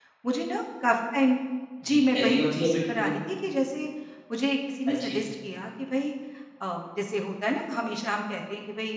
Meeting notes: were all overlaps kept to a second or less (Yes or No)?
No